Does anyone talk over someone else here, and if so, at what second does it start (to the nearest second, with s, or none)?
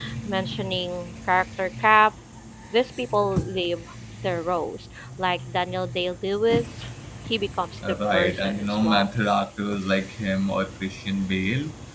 8 s